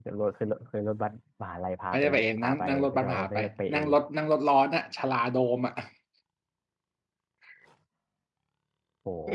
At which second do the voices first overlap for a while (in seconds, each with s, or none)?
1.9 s